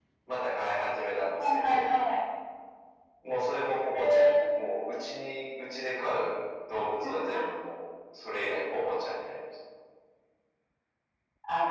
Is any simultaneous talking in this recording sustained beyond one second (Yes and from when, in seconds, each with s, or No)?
No